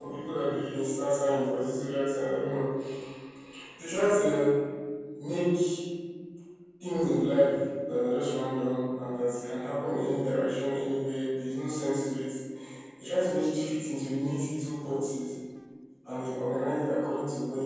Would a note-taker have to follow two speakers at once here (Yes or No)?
No